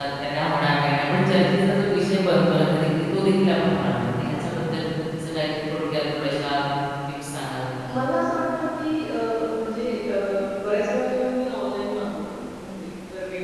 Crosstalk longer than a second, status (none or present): none